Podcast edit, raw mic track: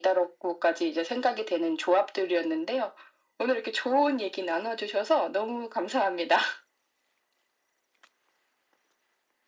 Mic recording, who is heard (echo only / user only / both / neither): echo only